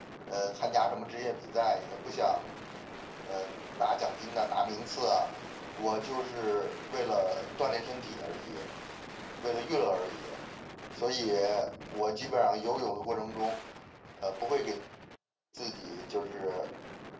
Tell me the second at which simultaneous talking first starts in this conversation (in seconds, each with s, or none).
none